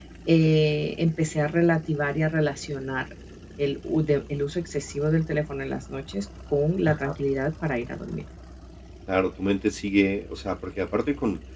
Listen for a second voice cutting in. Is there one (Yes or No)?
No